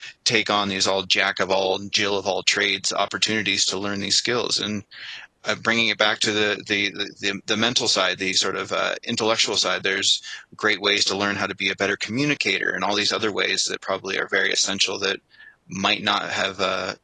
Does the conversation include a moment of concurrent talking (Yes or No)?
No